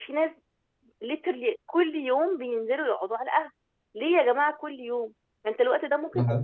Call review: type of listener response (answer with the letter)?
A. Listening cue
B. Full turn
A